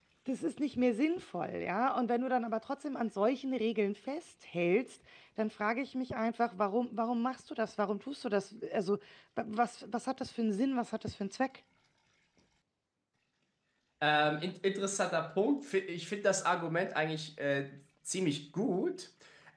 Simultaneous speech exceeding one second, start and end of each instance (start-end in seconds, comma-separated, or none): none